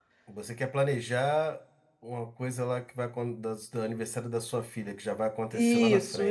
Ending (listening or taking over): taking over